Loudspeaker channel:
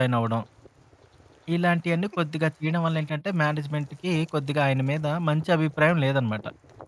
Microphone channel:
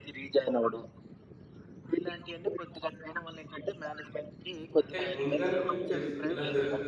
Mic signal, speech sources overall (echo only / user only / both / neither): both